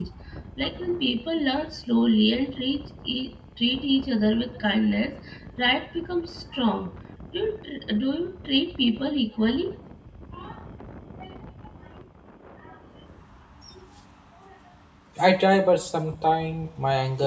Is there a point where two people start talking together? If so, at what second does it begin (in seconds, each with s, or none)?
none